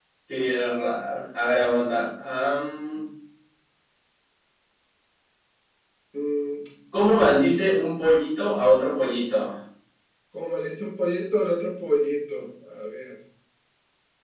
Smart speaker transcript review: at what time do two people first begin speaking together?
none

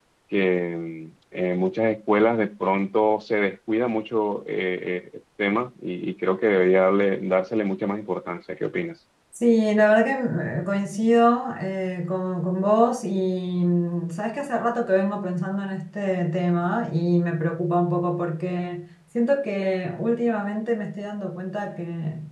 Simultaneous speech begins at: none

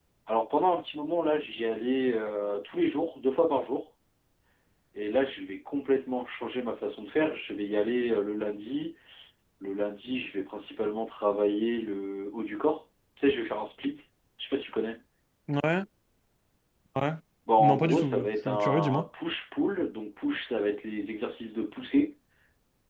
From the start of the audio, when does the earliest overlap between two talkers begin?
18 s

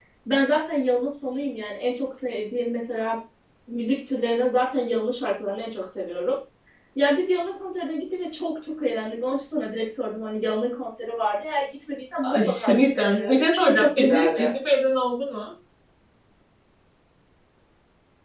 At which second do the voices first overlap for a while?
12 s

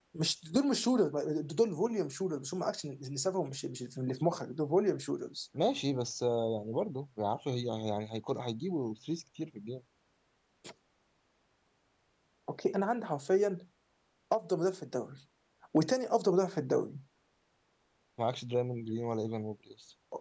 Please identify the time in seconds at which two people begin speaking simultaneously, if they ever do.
none

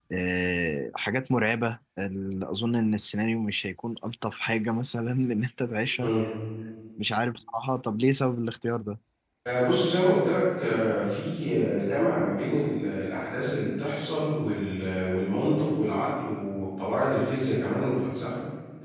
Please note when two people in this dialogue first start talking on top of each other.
none

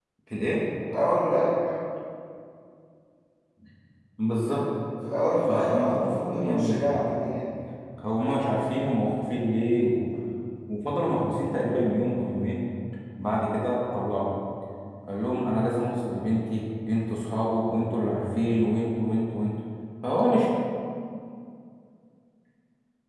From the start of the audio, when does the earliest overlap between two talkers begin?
5 s

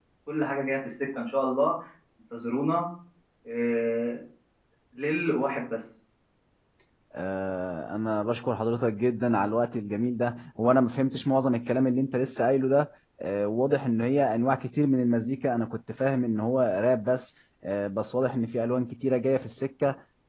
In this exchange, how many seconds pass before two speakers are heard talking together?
none

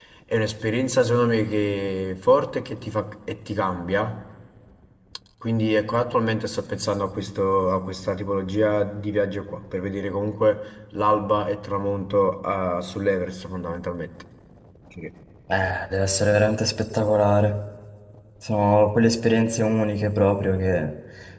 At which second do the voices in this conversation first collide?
none

